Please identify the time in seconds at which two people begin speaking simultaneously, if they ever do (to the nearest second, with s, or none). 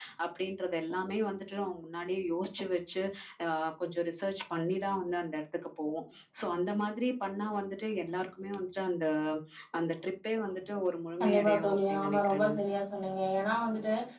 11 s